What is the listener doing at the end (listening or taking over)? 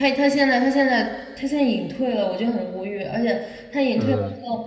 listening